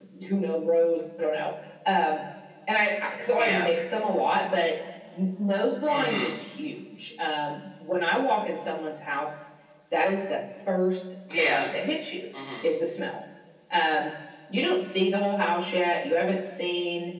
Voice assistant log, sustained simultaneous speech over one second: none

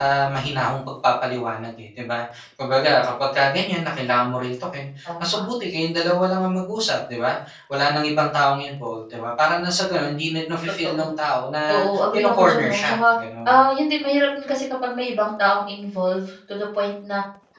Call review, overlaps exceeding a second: present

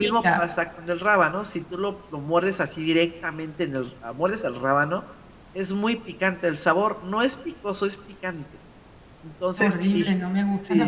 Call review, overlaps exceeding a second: none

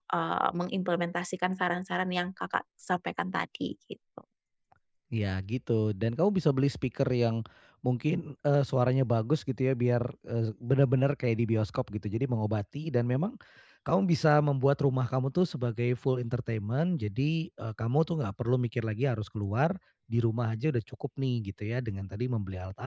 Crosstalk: none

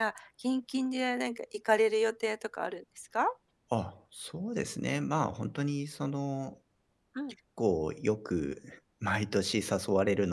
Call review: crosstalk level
none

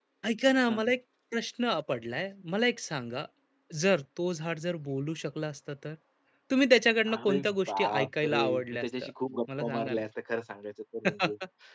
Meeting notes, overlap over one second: present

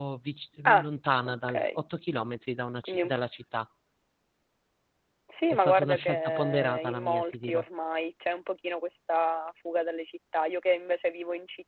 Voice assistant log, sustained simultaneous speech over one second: present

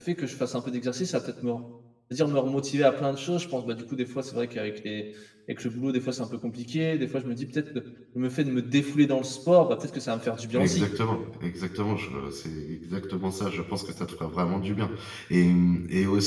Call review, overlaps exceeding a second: none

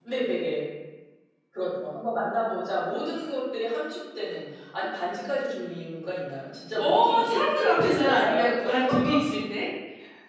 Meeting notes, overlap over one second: present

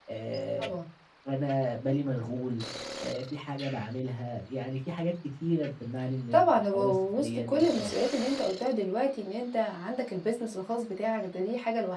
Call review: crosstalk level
present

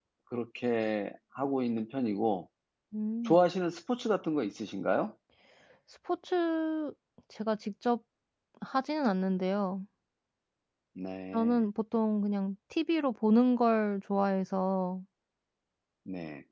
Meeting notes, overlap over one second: none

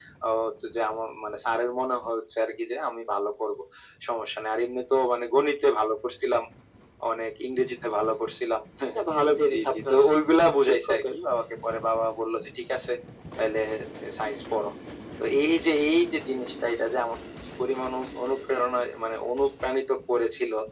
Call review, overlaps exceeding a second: none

